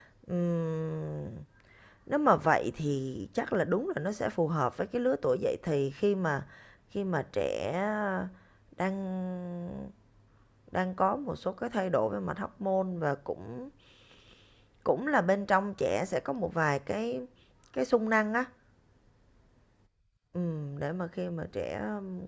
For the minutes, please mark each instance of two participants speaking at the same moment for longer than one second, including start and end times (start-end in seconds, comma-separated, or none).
none